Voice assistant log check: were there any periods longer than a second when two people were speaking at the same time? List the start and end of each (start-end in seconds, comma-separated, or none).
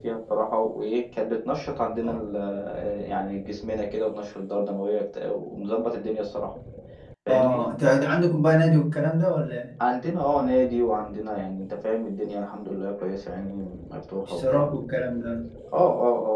none